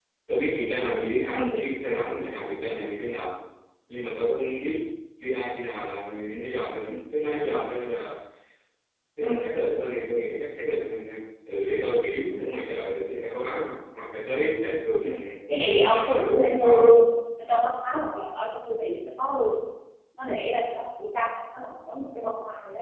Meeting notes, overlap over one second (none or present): present